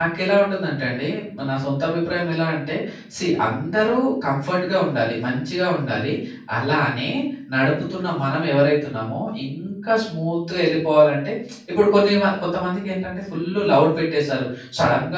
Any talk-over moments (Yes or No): No